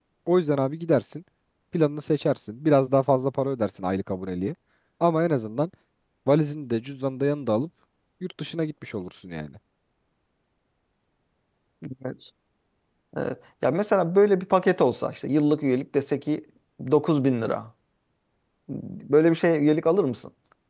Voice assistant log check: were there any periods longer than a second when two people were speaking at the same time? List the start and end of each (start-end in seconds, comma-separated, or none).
none